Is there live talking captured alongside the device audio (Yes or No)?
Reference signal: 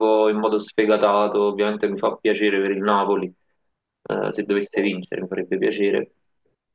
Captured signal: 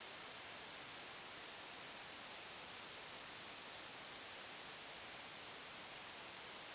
No